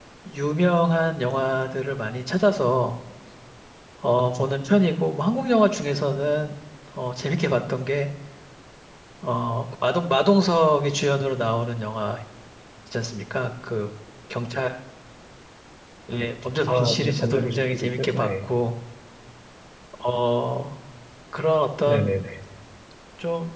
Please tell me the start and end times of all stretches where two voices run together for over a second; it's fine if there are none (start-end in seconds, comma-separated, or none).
16.7-18.5